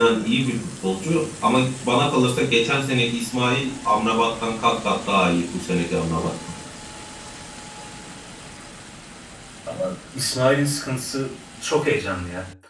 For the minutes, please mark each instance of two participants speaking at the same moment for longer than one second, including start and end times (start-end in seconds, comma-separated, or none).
none